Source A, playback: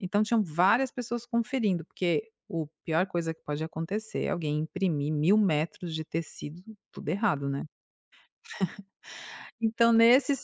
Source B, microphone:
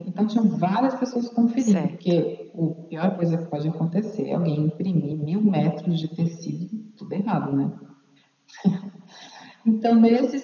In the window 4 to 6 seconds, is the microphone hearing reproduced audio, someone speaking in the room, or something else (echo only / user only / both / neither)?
echo only